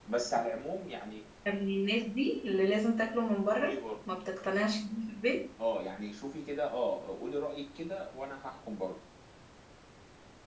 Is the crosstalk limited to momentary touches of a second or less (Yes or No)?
Yes